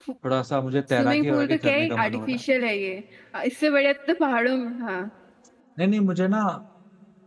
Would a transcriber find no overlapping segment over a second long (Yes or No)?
No